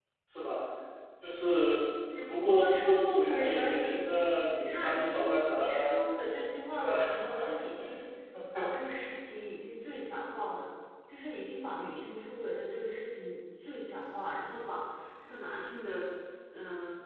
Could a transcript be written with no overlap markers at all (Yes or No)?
No